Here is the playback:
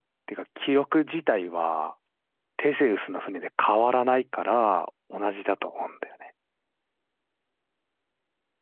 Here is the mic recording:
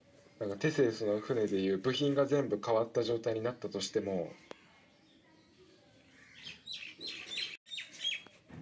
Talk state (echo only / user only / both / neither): user only